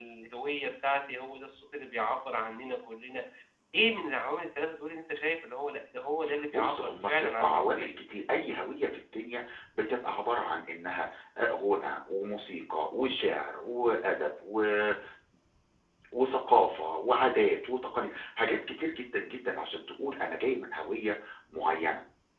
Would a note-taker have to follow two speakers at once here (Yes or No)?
Yes